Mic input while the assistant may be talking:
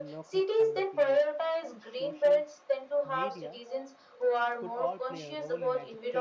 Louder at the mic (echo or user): echo